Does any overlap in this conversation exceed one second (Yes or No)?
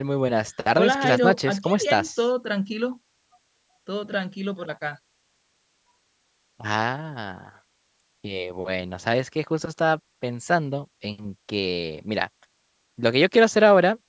Yes